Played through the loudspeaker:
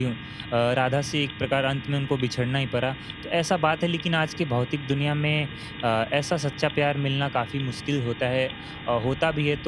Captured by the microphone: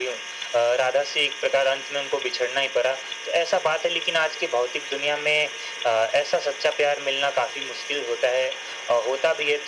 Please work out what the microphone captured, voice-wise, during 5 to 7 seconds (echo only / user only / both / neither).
echo only